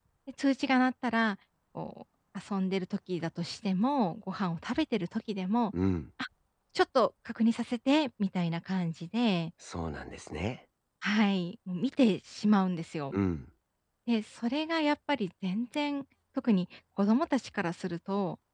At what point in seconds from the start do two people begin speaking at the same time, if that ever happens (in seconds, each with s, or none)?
none